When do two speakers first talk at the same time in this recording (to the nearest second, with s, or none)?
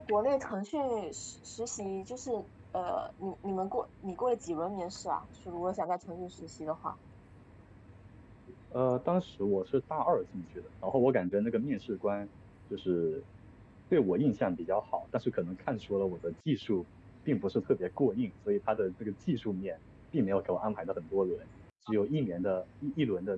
none